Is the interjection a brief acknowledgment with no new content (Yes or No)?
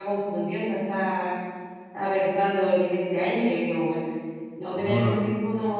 Yes